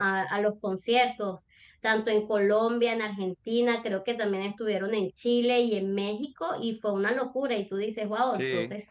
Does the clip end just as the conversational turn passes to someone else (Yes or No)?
No